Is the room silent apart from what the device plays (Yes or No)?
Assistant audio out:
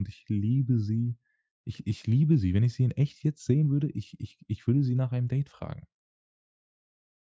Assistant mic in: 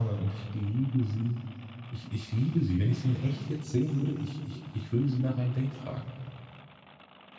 Yes